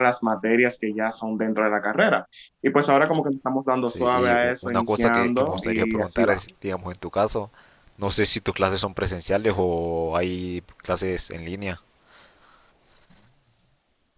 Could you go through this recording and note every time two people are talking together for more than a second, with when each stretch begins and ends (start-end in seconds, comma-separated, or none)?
3.9-6.3